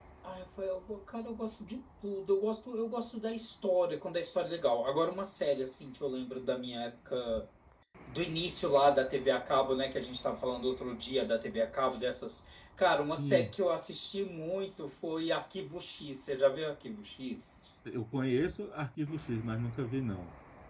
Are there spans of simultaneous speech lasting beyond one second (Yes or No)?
No